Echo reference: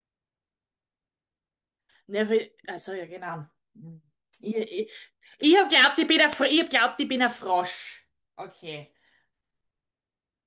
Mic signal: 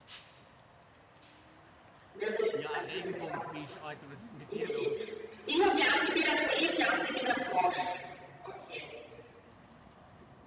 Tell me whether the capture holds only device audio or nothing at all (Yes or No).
No